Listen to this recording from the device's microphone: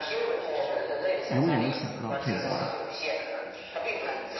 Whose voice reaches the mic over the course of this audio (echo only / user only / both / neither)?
both